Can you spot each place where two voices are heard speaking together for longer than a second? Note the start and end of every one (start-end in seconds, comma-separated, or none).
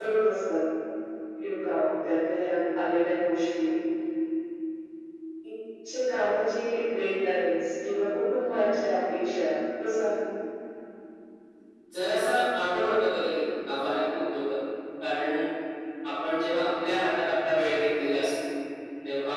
none